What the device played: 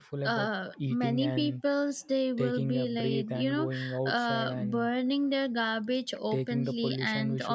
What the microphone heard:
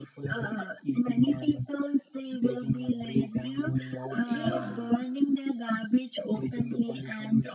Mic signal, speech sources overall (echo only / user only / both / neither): both